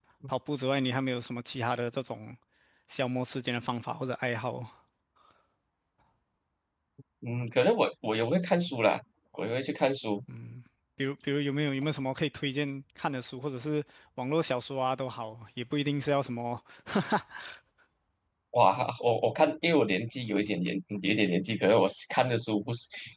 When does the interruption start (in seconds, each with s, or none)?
none